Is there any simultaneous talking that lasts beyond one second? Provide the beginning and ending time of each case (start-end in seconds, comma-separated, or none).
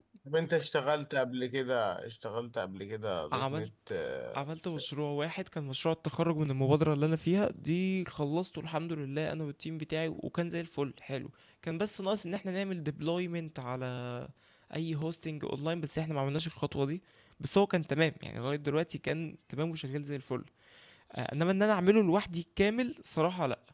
none